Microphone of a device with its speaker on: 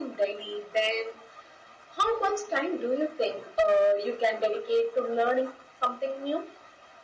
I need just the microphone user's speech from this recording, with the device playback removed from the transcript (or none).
none